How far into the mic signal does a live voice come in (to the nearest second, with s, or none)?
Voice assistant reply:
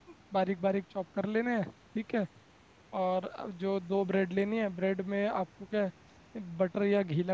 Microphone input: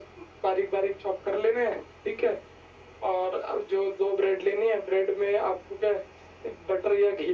none